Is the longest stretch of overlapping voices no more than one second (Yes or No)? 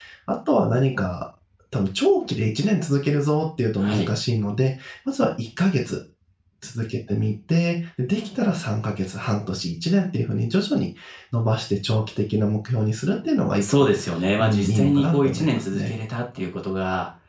No